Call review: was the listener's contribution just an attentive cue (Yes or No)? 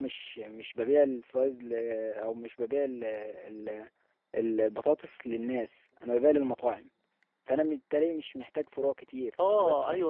No